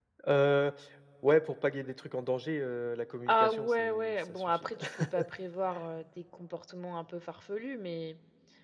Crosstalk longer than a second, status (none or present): present